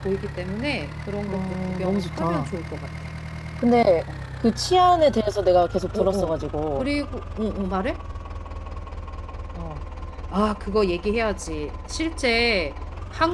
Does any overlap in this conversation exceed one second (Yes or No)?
Yes